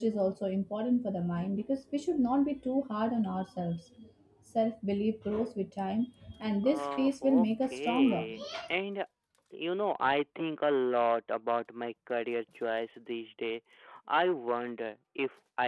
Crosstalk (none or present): present